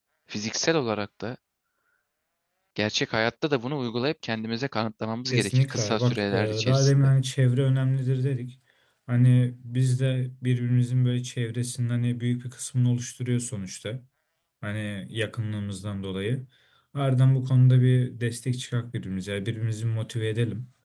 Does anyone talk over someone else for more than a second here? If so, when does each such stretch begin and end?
5.3-7.1

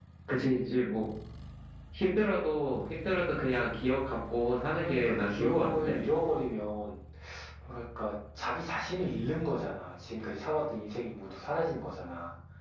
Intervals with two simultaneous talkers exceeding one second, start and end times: 4.7-6.0

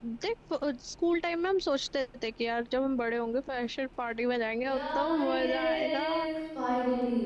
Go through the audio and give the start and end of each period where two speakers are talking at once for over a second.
4.6-6.1

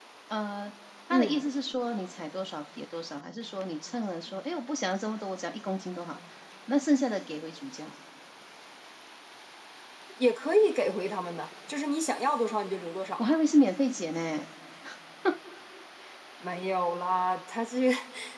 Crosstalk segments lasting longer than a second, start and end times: none

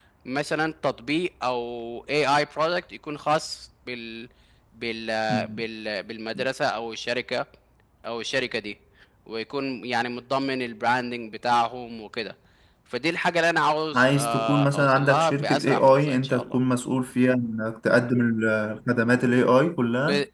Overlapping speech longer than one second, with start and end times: 14.0-16.6

